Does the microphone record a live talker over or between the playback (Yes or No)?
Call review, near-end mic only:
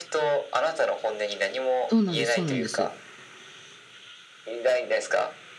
Yes